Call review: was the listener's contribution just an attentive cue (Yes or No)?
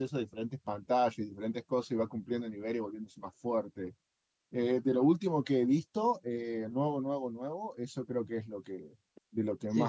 No